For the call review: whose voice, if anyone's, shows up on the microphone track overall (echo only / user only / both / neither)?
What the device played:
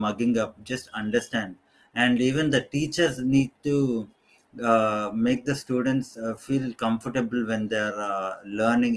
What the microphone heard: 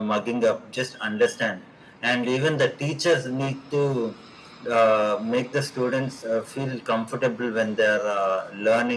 echo only